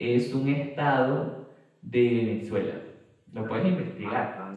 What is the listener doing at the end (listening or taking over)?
taking over